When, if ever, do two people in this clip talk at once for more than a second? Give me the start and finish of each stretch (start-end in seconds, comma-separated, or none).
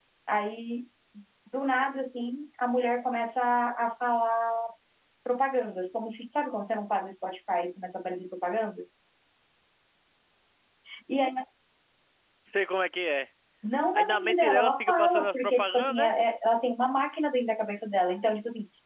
14.0-16.1